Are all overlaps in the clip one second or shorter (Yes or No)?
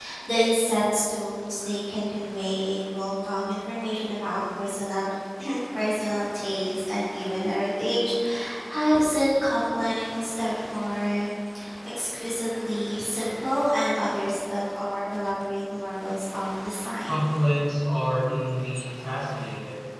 Yes